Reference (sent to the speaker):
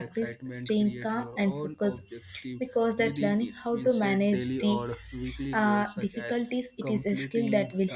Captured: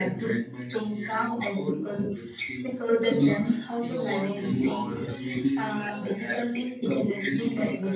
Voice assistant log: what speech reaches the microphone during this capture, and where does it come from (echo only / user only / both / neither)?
both